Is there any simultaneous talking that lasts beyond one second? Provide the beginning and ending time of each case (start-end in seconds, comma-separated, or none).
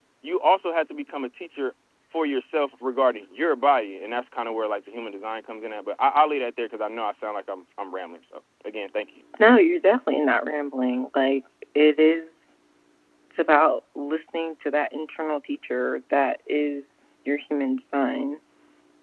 none